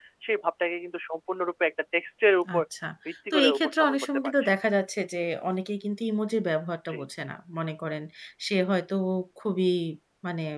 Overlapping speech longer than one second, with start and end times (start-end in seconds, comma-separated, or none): 3.3-4.5